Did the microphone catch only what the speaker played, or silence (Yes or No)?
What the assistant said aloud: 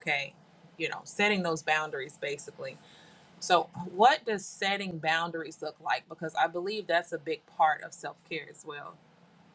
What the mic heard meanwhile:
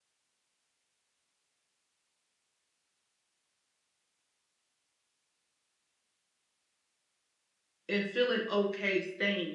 No